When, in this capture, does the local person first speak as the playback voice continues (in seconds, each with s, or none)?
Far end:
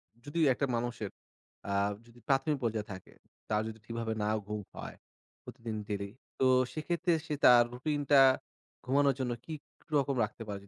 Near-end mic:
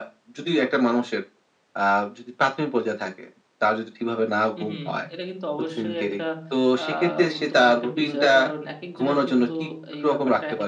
4.6 s